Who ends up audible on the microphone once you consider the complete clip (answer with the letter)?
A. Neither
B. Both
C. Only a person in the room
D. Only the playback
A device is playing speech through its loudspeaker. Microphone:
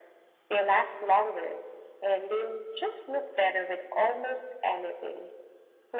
D